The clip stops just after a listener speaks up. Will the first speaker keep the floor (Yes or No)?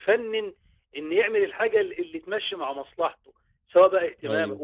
Yes